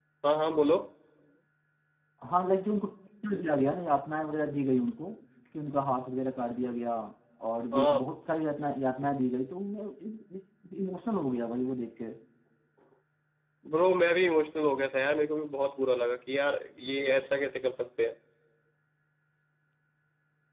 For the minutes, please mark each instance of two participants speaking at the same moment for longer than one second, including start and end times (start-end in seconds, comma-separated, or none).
none